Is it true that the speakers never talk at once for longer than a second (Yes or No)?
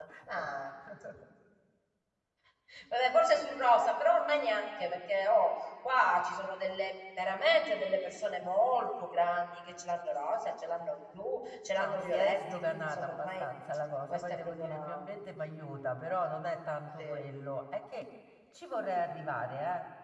No